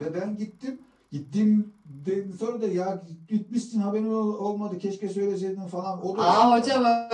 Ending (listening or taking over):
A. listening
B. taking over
B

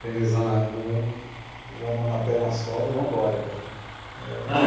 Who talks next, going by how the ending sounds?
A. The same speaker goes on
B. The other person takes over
B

